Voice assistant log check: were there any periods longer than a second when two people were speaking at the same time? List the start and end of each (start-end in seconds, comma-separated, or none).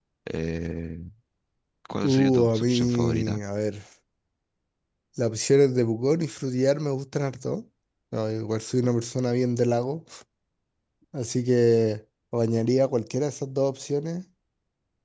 2.0-3.4